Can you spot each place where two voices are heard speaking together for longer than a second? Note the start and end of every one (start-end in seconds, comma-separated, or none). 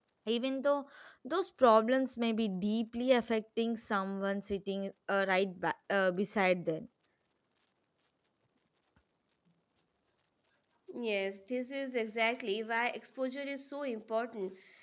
none